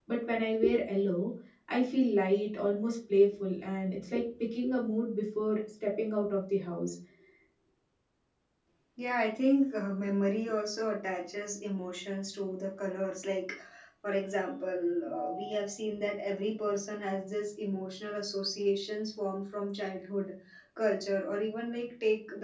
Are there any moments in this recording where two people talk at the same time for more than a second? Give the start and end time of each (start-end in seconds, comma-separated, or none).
none